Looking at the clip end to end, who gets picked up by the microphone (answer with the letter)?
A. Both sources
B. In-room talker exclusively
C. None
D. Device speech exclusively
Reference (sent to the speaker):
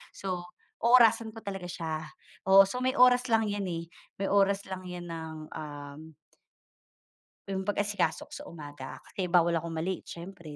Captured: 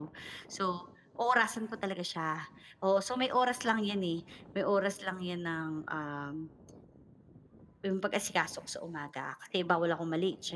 D